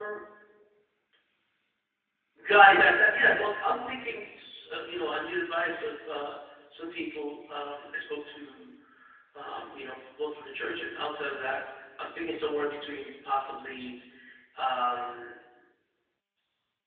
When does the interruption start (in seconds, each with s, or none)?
none